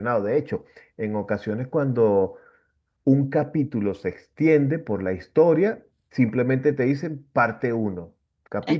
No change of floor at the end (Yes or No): Yes